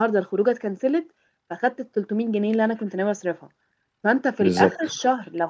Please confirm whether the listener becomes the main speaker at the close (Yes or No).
No